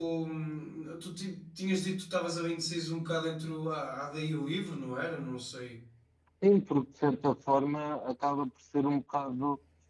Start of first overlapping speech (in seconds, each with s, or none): none